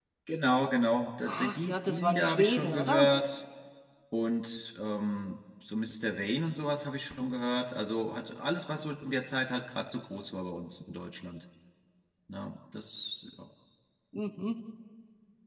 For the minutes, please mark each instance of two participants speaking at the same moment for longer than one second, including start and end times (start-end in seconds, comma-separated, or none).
1.2-3.1